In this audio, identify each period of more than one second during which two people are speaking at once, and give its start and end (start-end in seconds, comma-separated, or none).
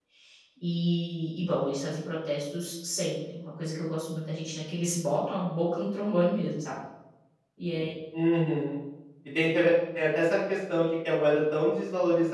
none